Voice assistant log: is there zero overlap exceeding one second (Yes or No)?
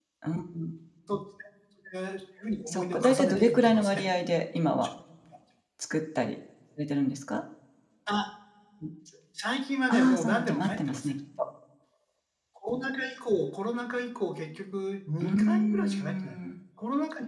No